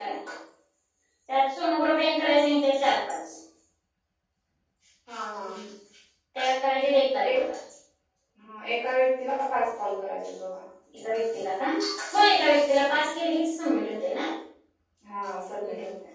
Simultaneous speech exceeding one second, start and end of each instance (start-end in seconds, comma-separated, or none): none